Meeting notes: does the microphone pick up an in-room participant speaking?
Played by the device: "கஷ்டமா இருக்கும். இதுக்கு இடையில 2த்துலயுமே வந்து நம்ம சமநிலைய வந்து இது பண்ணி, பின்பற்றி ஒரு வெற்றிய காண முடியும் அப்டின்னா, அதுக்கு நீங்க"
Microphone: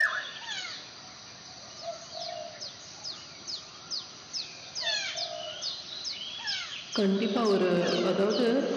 Yes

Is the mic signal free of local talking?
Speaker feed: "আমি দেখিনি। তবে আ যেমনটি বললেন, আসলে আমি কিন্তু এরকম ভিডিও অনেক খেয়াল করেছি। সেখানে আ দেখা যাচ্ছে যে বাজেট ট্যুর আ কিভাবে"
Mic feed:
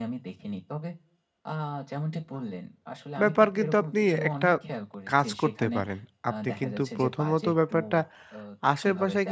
No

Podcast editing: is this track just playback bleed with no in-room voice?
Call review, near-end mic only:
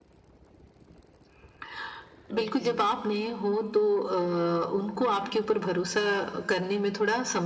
No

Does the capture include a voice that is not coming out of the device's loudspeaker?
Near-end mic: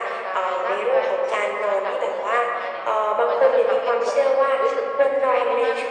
No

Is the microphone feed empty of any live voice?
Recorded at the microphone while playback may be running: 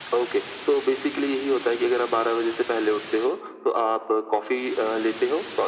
Yes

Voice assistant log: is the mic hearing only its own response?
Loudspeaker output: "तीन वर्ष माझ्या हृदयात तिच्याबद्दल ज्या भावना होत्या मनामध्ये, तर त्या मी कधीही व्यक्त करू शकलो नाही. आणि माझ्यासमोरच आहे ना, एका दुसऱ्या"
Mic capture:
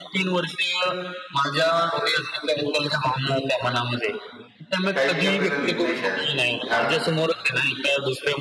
No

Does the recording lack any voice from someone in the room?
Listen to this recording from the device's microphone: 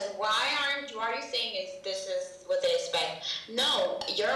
Yes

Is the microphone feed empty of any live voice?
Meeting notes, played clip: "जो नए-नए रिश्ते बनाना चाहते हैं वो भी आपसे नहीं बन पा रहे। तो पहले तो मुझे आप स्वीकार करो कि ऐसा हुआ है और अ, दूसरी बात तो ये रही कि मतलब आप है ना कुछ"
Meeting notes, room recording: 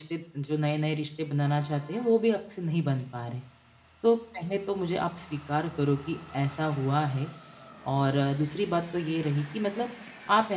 Yes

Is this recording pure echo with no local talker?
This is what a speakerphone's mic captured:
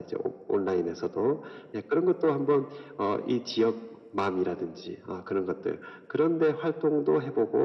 Yes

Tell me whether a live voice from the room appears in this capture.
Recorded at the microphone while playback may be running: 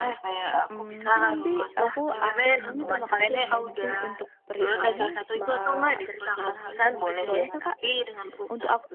Yes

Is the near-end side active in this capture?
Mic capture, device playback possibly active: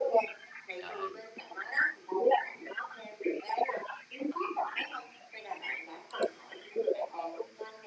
Yes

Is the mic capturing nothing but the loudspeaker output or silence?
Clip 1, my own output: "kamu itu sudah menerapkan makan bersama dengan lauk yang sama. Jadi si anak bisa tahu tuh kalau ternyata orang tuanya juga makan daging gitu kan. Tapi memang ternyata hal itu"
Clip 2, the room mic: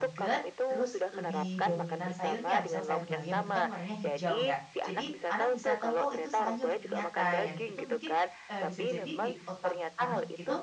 No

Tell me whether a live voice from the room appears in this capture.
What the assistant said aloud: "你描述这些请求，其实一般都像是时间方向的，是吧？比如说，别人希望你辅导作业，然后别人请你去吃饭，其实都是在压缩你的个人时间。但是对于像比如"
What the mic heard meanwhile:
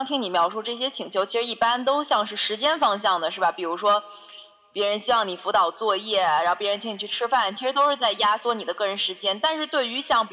No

